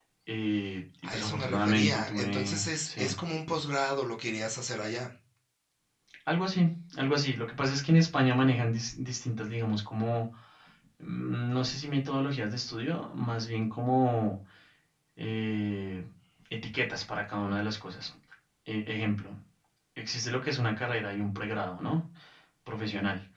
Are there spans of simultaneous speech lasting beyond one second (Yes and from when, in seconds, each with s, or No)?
Yes, from 1.0 s